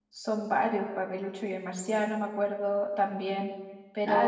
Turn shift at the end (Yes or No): Yes